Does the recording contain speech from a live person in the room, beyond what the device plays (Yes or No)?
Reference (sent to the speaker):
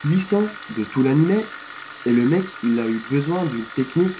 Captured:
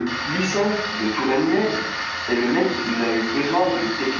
No